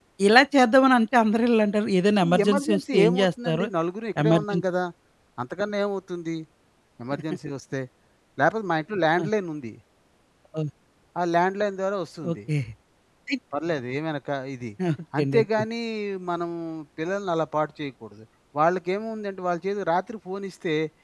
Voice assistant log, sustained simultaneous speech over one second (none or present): present